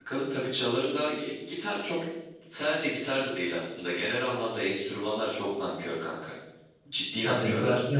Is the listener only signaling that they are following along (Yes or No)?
No